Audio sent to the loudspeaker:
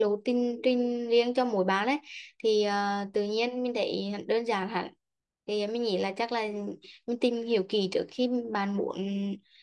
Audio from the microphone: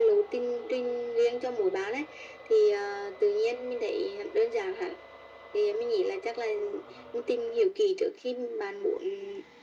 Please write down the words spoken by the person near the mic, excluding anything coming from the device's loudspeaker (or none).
none